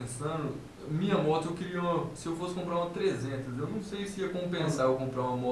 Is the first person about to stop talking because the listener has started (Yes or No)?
No